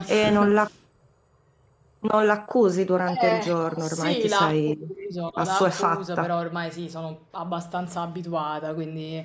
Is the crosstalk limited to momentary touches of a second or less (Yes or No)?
No